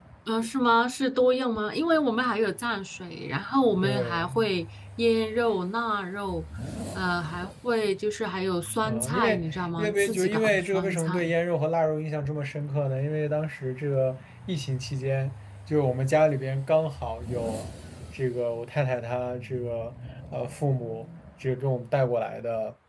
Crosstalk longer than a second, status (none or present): present